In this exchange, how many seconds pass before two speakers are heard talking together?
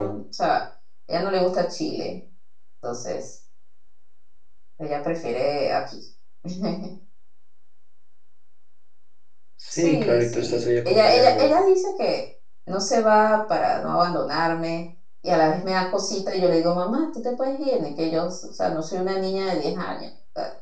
9.7 s

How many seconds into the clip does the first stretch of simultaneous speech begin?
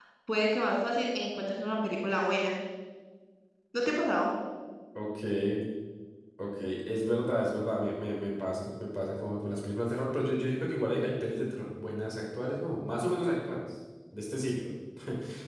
none

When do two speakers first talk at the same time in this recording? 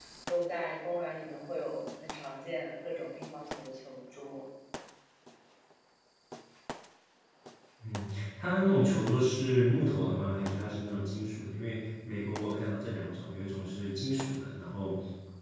none

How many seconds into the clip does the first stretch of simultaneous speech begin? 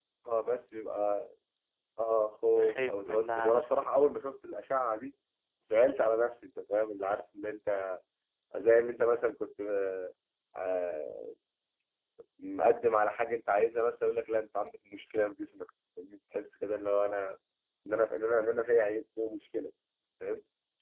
2.6 s

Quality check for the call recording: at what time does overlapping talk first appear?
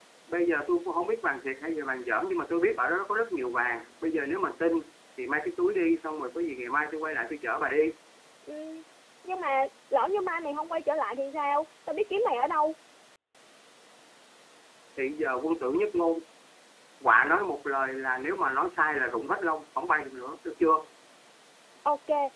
none

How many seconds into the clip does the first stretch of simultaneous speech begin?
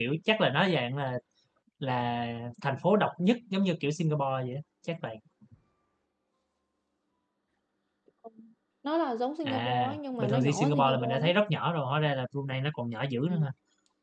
9.4 s

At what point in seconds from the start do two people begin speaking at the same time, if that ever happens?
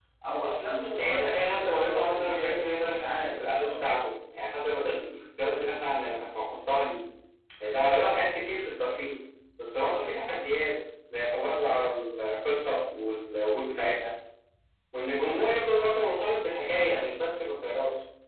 1.0 s

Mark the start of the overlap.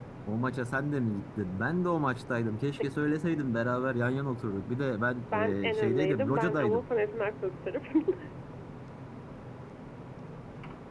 5.3 s

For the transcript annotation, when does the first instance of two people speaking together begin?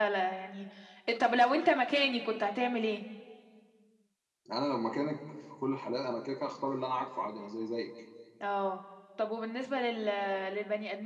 none

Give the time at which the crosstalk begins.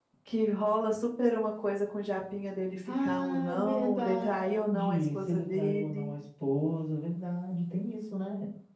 2.9 s

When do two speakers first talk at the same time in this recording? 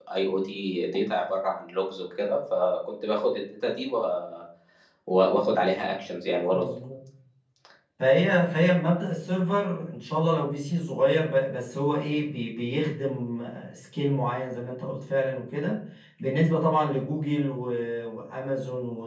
none

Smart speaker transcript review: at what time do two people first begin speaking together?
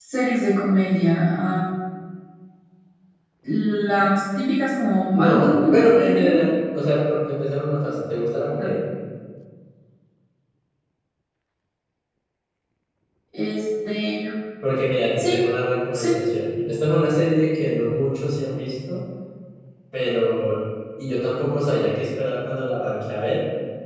5.1 s

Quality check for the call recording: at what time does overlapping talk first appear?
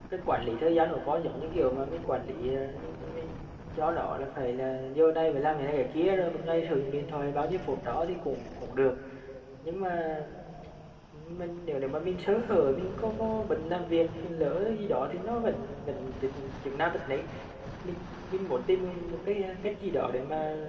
none

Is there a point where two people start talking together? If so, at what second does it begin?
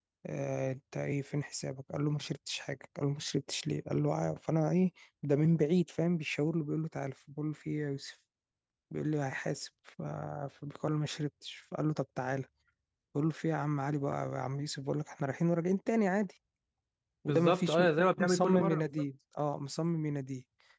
17.3 s

